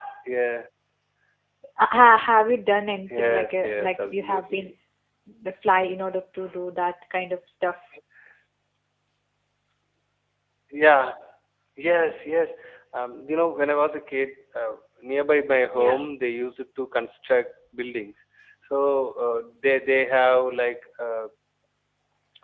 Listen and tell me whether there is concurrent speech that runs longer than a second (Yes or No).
Yes